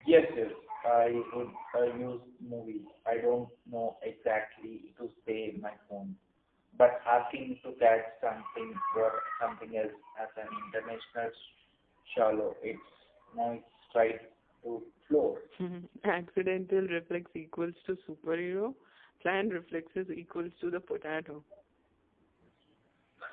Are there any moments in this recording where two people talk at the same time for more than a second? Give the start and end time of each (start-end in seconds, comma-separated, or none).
none